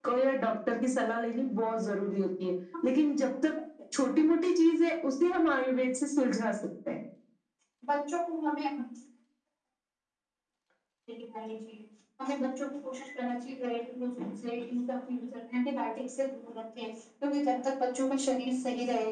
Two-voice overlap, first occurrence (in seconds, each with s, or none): none